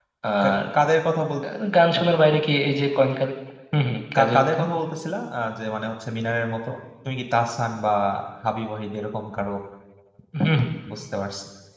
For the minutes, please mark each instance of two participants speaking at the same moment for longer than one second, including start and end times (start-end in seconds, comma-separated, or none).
none